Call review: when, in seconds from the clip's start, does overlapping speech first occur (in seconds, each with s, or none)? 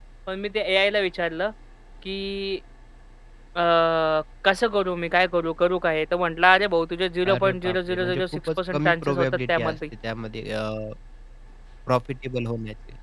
7.2 s